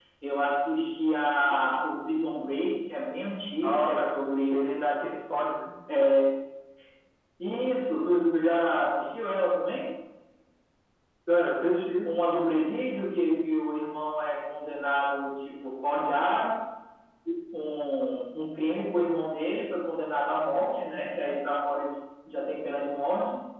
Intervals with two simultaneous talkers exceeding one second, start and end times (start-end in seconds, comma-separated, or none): none